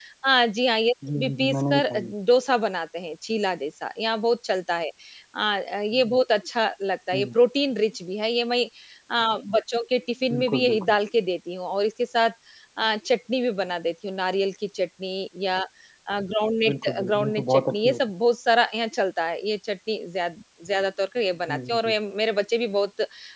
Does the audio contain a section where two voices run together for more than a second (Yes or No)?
Yes